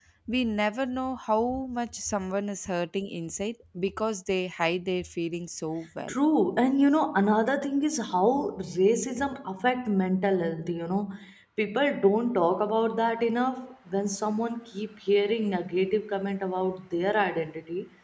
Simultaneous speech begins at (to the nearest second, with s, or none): none